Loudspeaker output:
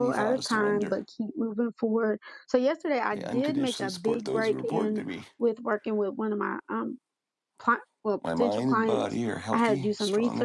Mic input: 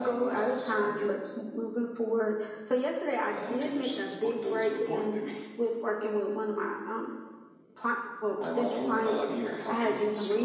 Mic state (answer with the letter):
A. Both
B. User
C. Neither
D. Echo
D